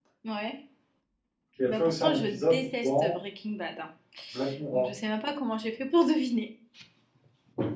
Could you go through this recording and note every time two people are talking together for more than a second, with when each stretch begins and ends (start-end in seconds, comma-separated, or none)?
1.6-3.1